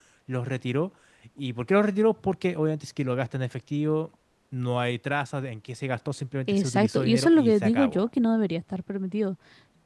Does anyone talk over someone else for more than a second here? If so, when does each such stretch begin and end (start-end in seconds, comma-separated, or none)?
6.5-8.0